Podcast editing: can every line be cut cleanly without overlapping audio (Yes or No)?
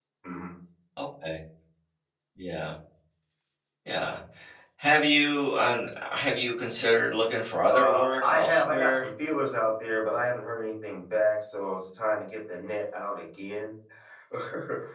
No